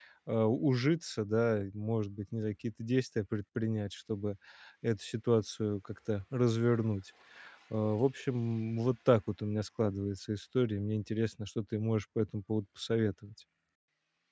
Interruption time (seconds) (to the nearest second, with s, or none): none